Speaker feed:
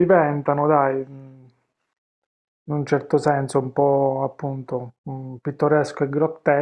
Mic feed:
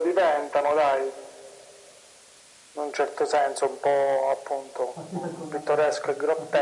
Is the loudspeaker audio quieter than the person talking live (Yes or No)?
No